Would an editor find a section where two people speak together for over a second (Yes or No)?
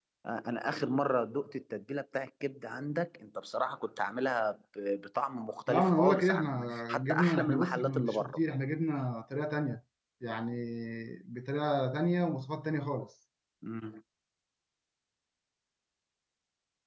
Yes